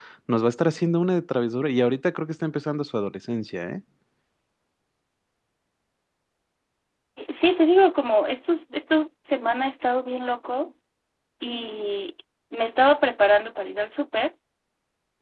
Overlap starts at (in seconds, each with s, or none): none